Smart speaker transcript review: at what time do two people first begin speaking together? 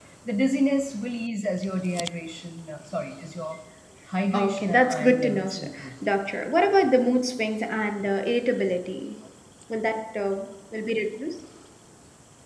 4 s

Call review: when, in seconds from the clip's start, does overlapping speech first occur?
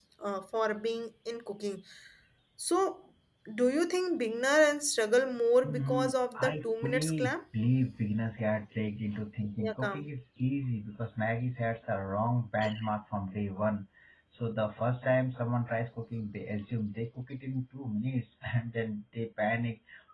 6 s

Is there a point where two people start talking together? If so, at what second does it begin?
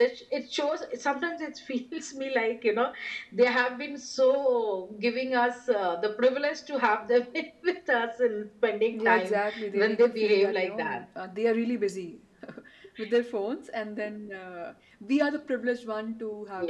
9 s

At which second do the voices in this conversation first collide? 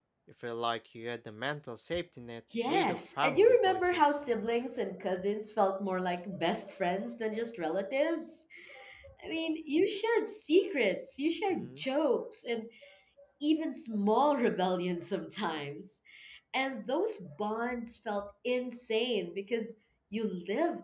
3 s

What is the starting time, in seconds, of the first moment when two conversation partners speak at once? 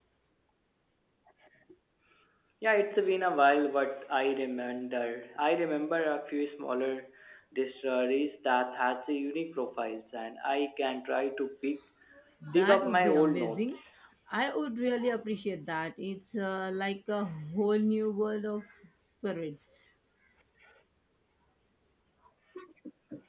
13 s

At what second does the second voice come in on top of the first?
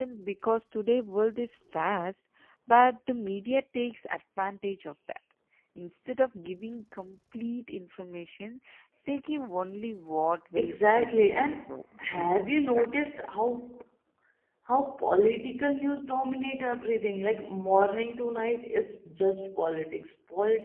11 s

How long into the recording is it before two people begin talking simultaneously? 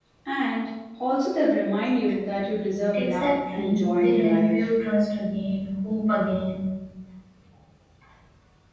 3 s

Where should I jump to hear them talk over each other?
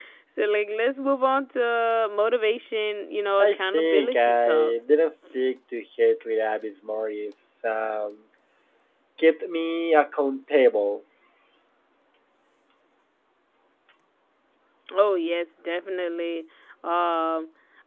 3 s

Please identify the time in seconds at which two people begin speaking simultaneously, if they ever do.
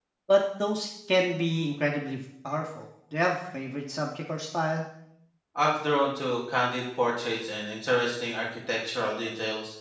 none

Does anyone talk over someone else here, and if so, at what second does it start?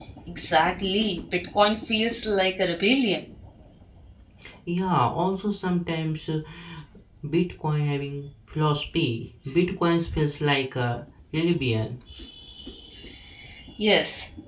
none

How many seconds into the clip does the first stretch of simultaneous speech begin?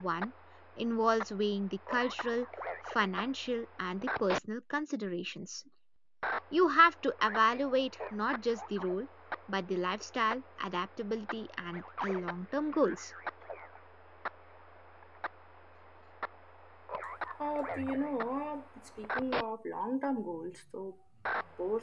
none

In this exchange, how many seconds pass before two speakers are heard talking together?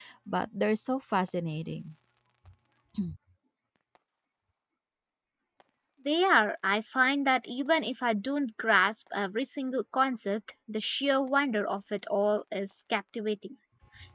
none

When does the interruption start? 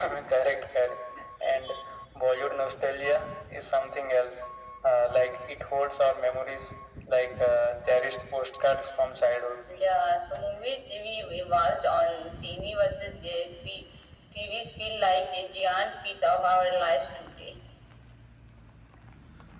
none

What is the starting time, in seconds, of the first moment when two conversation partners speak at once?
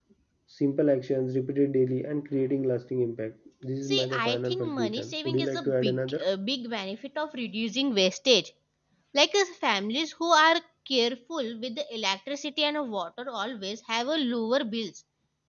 4 s

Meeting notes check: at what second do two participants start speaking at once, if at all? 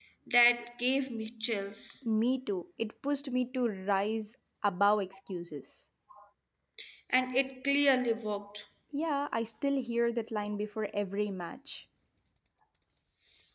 none

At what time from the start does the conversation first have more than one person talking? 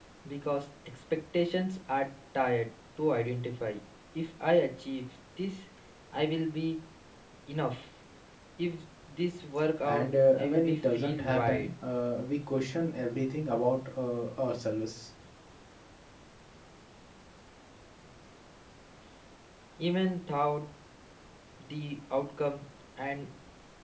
10 s

